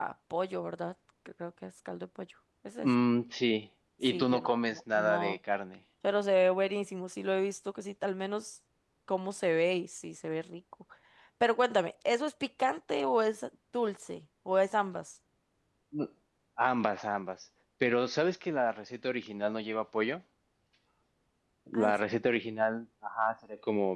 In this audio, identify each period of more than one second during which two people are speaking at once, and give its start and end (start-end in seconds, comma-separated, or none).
4.1-5.4